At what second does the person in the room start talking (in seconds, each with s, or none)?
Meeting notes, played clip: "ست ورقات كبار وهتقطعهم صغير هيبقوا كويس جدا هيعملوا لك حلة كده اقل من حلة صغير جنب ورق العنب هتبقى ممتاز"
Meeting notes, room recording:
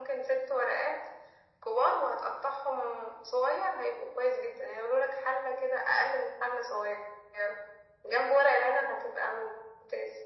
none